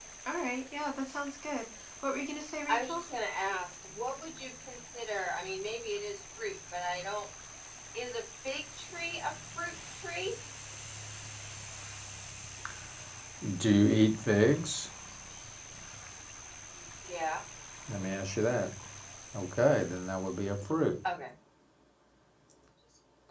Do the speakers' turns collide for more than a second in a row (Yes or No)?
No